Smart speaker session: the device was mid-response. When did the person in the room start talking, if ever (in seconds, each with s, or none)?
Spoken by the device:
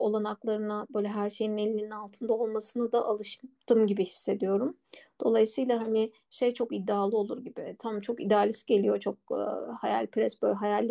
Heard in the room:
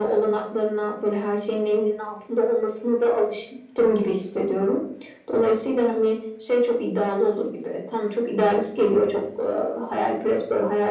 none